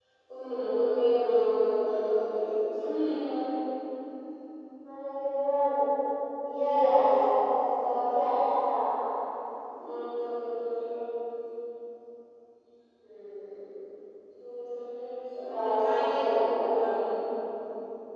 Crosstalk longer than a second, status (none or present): present